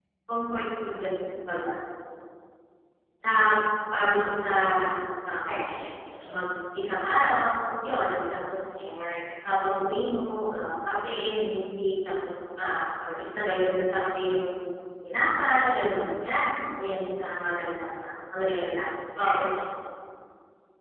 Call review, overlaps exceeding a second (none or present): none